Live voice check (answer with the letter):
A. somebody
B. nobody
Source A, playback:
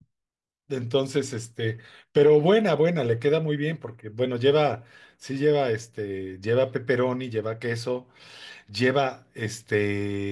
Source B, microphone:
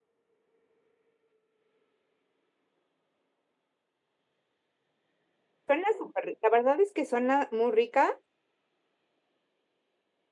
A